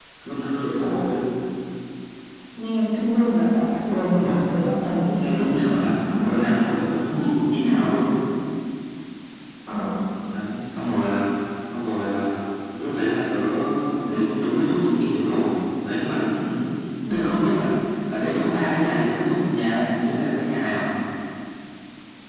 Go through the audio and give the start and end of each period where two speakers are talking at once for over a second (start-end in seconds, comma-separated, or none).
none